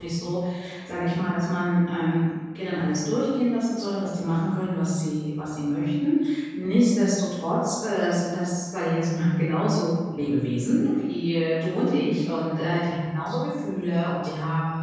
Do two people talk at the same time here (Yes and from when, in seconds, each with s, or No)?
No